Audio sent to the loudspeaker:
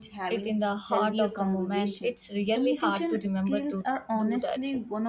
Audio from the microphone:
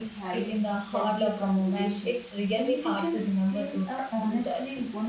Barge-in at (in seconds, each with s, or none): none